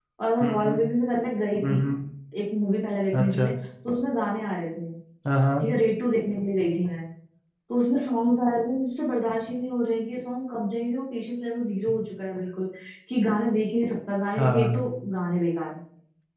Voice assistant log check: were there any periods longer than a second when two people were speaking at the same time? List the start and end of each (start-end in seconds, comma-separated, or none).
none